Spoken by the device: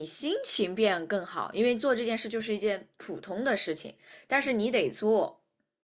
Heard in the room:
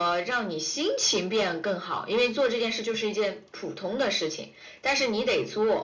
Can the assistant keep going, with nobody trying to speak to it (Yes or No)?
Yes